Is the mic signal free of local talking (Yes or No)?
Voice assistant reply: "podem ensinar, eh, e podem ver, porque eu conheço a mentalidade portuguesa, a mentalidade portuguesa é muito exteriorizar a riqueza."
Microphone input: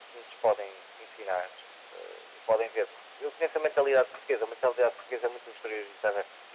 Yes